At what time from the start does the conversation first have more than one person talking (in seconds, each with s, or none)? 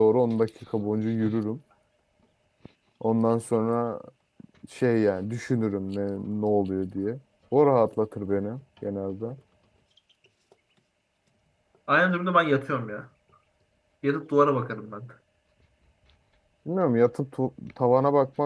none